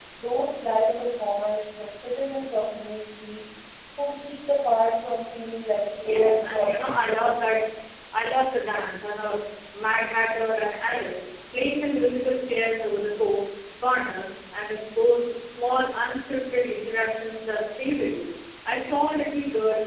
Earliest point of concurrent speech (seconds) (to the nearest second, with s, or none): 6 s